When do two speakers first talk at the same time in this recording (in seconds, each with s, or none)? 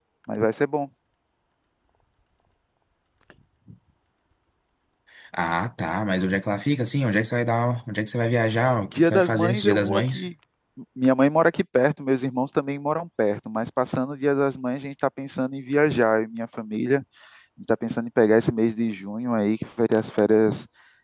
8.9 s